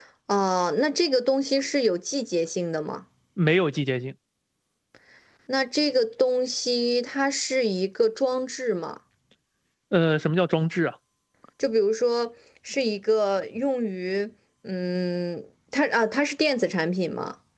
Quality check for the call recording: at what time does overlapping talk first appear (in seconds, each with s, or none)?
none